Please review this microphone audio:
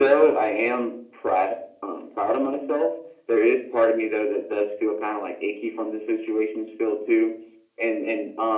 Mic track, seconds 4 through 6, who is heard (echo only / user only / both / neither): echo only